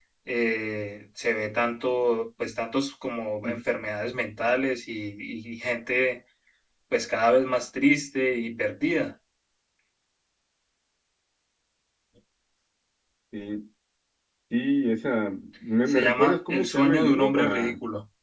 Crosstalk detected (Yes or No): Yes